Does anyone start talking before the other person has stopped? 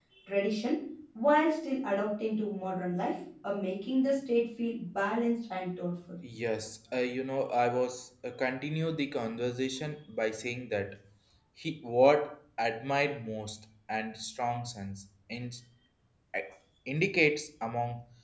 No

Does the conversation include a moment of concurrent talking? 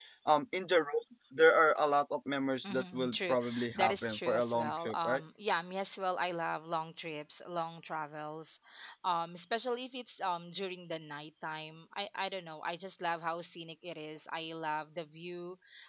Yes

